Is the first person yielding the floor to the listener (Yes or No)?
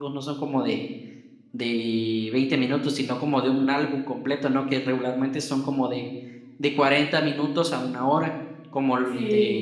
No